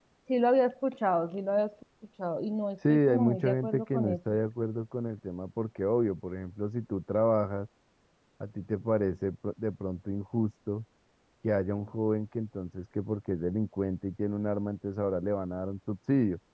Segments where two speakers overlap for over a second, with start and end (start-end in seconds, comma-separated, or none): 2.9-4.2